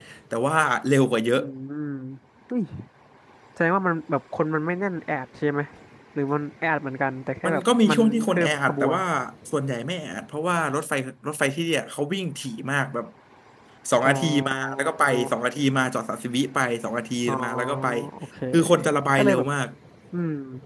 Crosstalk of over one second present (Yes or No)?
Yes